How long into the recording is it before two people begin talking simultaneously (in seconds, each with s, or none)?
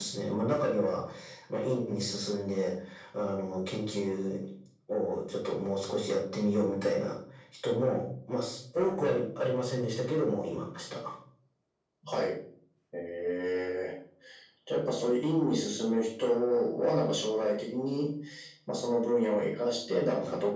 none